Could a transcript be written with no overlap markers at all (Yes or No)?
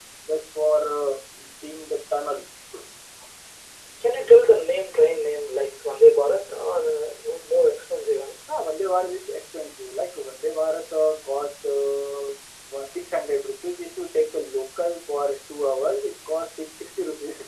Yes